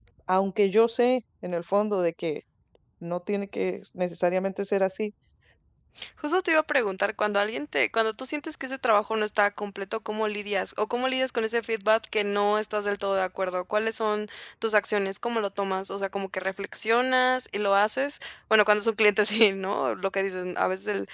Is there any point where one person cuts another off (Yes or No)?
No